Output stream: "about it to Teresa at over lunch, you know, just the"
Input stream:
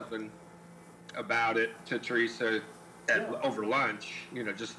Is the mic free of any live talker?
No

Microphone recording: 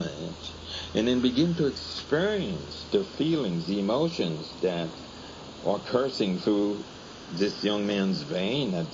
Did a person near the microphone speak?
No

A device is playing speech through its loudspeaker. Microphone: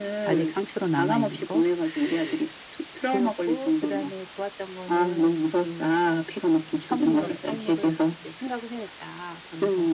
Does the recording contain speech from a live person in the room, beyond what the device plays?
Yes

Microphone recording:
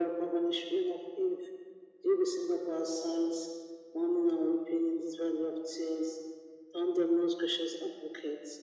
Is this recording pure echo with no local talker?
Yes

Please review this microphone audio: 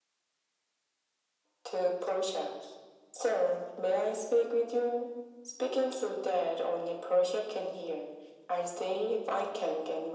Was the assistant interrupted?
No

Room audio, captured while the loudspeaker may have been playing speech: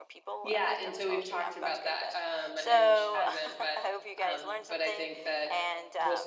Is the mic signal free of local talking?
No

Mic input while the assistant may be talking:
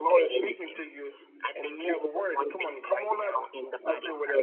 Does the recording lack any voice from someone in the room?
Yes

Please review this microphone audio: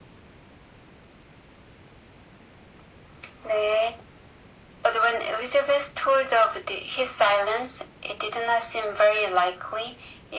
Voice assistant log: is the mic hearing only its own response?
Yes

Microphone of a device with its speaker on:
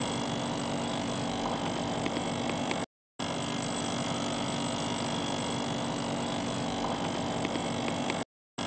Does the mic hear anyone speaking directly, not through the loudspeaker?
No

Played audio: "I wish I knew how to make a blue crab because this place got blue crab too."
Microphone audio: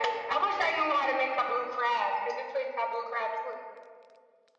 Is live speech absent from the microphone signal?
Yes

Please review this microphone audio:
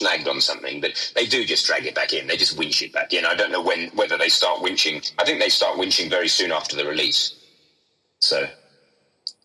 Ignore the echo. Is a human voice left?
No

